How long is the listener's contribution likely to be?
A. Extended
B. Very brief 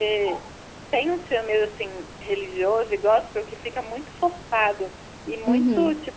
B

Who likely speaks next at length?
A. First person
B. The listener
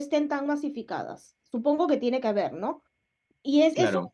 A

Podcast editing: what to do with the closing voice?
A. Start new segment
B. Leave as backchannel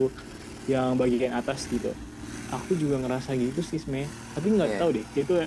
B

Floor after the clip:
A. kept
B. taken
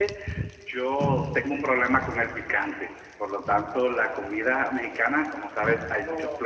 A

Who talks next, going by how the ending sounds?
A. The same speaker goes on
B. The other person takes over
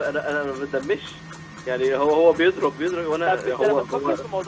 B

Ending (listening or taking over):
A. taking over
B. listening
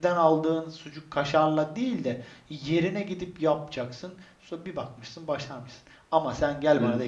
B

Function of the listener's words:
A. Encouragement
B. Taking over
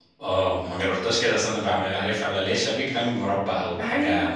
B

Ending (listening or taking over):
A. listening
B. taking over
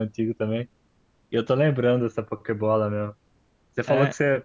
A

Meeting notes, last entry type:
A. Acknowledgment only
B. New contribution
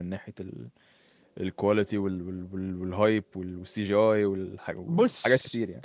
B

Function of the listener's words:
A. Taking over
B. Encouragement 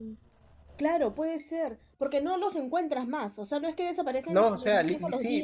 A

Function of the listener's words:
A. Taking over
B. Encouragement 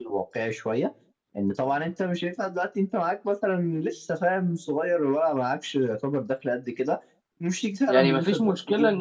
A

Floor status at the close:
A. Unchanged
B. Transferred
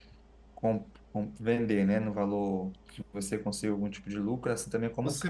B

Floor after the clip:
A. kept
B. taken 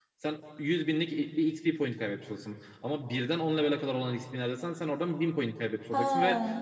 A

